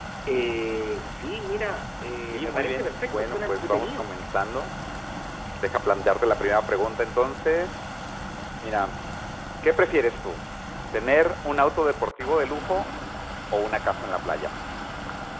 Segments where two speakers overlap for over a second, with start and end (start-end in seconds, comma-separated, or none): 2.3-4.1